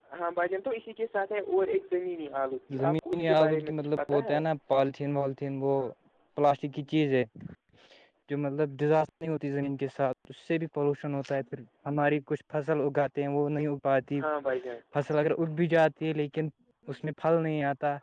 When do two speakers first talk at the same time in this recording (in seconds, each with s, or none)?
2.7 s